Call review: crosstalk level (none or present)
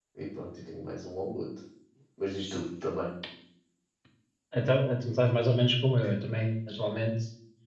none